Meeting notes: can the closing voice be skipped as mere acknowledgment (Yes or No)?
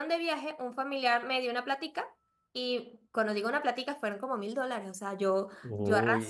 Yes